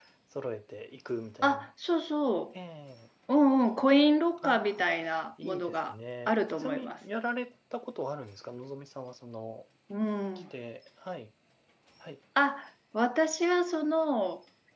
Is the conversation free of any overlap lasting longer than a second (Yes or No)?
No